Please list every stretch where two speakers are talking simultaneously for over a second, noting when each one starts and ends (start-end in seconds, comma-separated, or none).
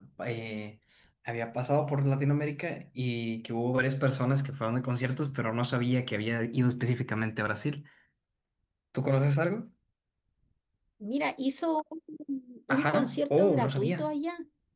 12.7-14.1